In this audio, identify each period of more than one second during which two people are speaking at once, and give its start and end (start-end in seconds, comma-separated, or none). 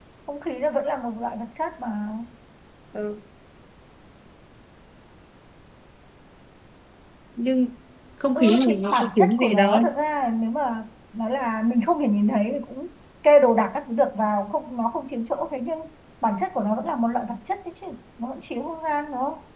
8.4-9.8